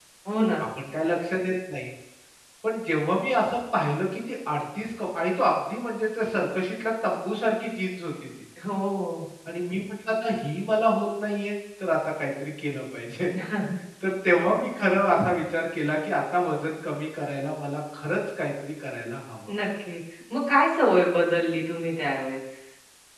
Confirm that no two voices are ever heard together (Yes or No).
Yes